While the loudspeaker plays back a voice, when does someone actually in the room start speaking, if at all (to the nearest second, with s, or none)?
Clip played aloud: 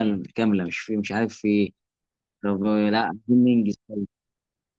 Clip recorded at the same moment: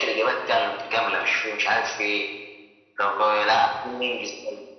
none